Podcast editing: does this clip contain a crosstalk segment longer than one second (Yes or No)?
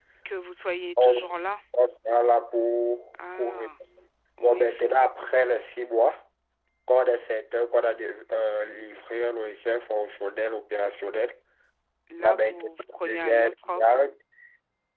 Yes